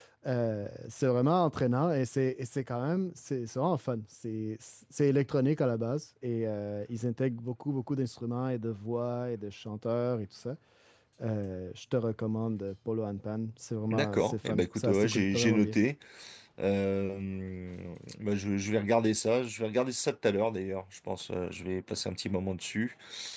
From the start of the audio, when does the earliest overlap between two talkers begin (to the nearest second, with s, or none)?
14 s